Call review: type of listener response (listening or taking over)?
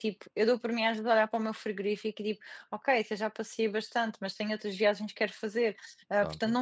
listening